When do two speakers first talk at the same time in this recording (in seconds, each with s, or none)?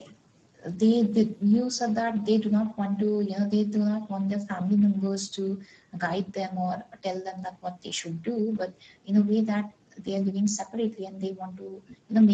none